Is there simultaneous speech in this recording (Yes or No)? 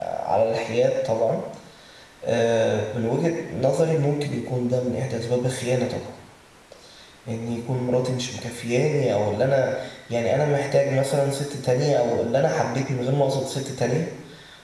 No